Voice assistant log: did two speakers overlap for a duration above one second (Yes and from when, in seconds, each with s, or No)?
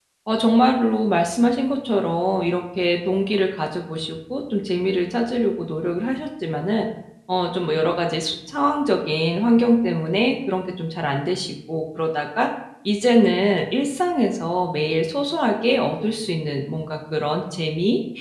No